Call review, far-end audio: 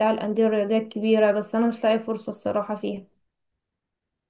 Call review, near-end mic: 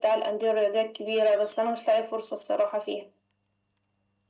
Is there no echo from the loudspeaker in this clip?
No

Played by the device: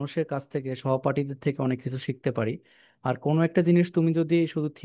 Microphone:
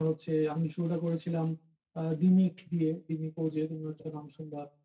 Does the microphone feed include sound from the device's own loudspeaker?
No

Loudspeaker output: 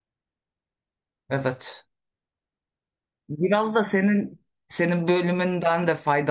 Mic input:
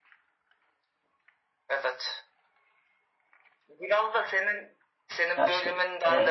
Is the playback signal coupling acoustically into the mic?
Yes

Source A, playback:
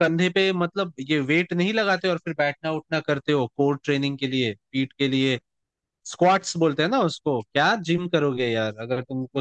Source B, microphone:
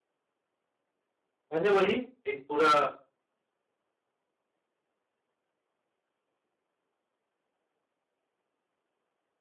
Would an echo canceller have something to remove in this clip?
No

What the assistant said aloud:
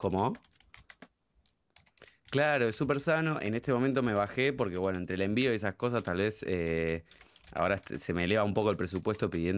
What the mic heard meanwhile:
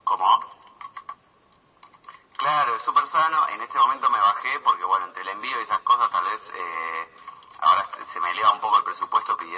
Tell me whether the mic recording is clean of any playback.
No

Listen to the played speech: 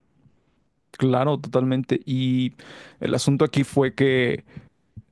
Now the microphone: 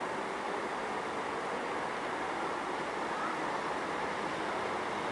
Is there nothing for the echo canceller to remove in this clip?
Yes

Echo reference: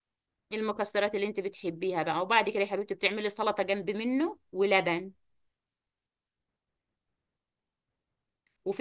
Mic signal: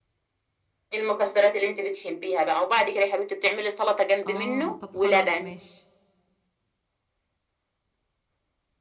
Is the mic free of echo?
No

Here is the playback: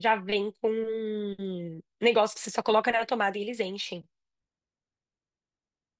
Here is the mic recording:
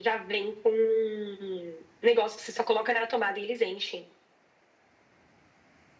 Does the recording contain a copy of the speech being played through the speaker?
Yes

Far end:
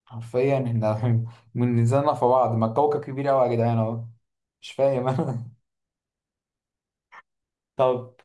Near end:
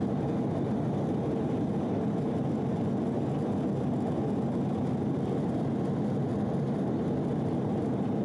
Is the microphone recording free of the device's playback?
Yes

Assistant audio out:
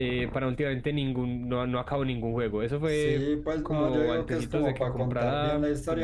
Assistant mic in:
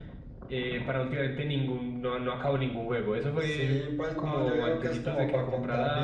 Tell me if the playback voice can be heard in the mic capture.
Yes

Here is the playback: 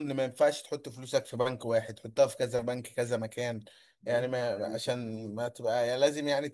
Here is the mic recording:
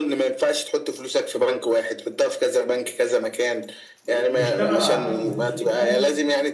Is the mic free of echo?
No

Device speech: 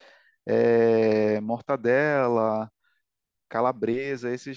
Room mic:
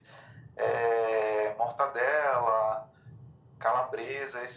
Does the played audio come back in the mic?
Yes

